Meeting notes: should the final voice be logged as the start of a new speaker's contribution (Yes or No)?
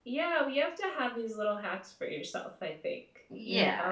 Yes